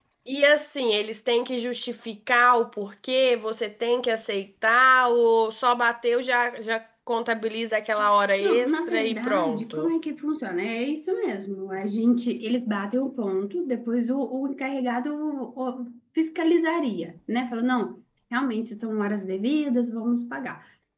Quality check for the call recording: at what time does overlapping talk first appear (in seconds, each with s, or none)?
8.4 s